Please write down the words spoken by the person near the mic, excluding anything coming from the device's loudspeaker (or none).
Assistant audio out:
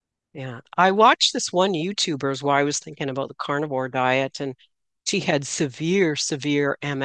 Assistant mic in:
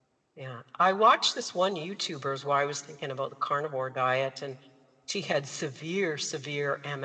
none